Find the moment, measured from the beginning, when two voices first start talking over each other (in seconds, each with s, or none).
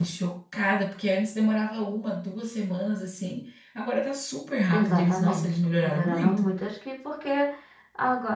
4.7 s